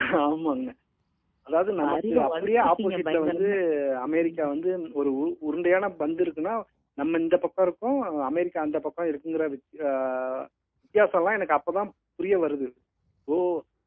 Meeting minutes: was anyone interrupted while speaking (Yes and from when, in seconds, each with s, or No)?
Yes, from 1.8 s